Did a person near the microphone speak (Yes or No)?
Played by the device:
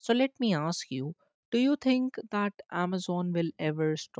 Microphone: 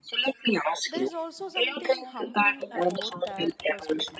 Yes